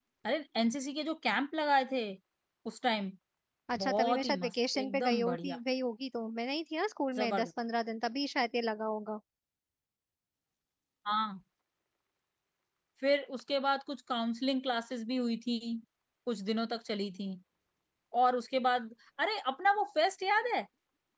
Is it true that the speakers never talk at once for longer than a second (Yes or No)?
No